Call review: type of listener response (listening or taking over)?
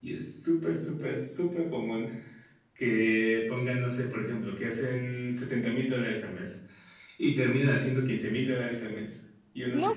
taking over